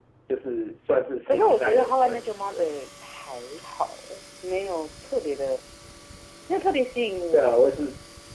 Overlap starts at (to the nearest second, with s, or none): 1 s